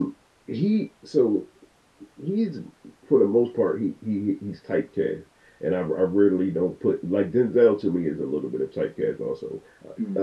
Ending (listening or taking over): listening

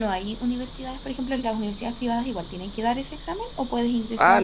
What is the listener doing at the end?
taking over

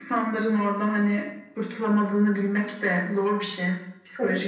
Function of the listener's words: taking over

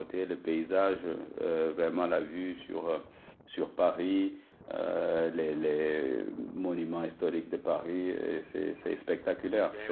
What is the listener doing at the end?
taking over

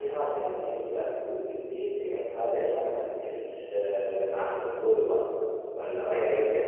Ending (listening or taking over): taking over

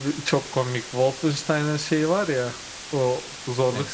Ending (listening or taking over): listening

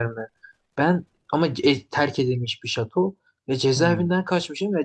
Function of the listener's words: listening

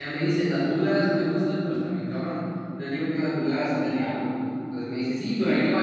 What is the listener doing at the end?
listening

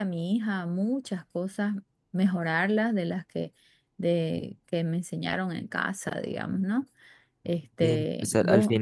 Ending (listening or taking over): taking over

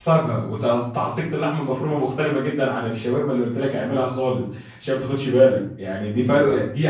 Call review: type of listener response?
listening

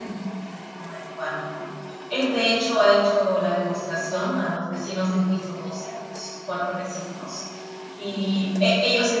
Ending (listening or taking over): listening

